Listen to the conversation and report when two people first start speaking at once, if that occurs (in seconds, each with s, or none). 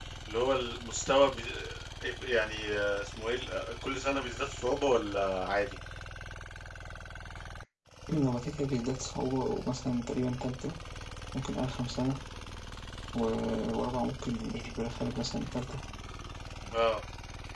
none